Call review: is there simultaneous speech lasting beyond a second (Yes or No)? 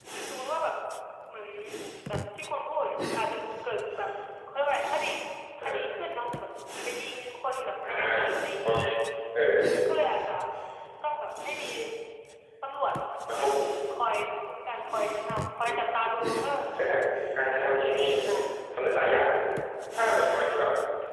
No